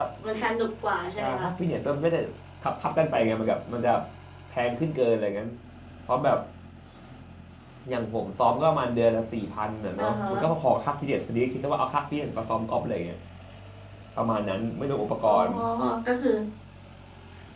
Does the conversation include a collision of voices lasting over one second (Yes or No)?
No